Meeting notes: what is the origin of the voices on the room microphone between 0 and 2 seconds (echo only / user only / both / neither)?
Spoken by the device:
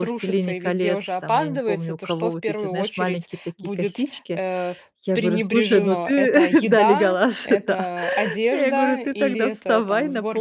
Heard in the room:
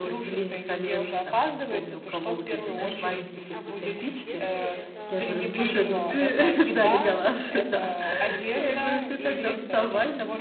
echo only